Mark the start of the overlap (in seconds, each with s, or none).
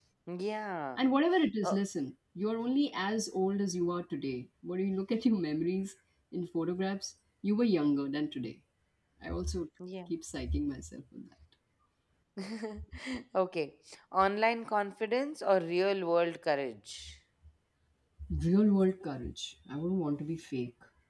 none